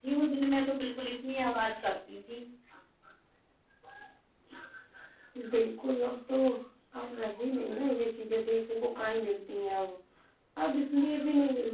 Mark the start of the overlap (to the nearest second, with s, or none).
none